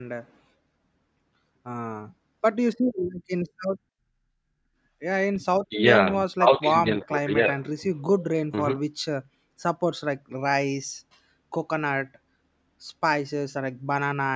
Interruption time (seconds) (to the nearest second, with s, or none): 6 s